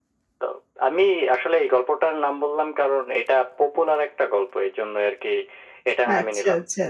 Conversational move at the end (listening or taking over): taking over